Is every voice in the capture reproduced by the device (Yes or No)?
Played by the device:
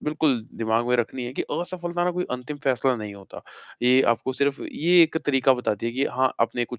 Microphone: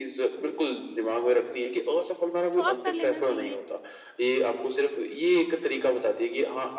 No